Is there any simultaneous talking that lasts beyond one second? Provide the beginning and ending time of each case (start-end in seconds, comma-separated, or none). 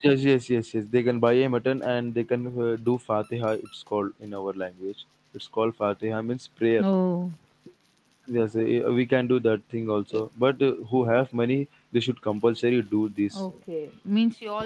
none